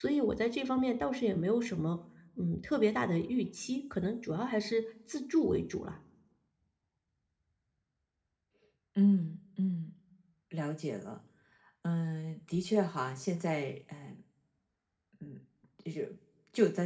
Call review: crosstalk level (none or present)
none